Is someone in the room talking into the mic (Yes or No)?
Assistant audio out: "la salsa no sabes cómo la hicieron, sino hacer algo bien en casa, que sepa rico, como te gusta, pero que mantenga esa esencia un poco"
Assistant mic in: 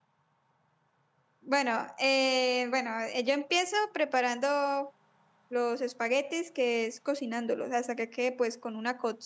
Yes